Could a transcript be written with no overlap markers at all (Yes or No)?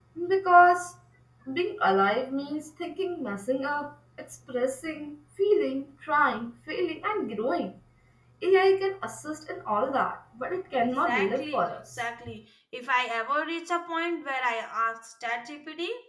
No